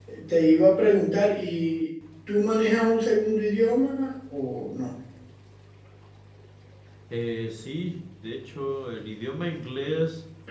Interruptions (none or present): none